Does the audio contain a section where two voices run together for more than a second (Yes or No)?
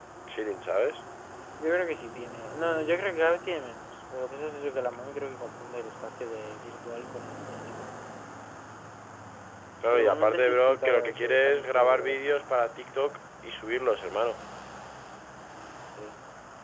Yes